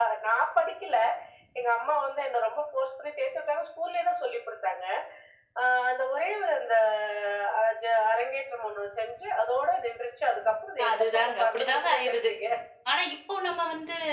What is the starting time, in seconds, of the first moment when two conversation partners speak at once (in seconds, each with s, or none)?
10.8 s